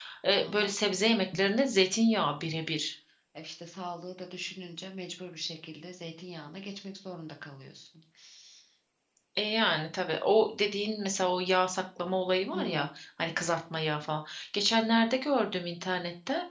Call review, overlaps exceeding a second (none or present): none